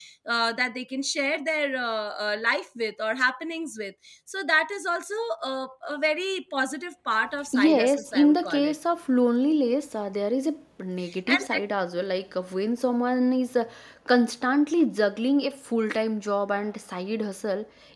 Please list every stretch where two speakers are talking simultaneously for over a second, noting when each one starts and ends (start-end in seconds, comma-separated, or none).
7.5-8.7